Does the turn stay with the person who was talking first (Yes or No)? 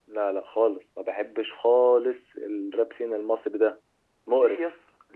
No